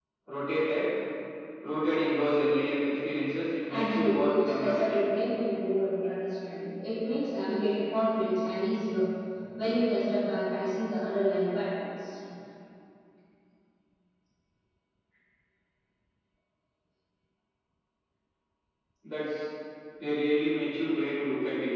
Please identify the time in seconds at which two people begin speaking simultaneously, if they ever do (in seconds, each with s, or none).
3.7 s